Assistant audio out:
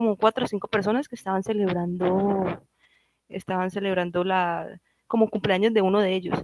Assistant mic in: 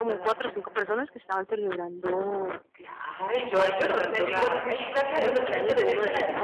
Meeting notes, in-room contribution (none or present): present